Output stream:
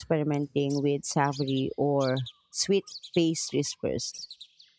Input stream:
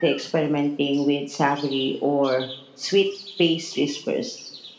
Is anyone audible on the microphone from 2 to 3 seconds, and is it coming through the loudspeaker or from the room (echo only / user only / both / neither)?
echo only